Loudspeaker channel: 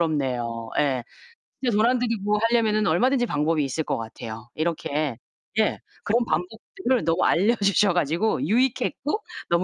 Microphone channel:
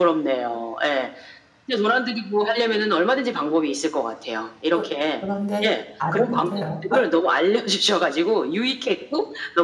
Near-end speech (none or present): present